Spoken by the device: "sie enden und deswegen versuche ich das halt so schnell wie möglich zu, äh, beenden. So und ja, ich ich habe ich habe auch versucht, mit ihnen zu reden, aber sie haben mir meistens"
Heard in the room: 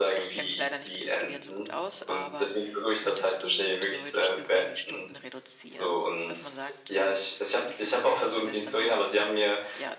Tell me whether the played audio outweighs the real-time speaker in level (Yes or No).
Yes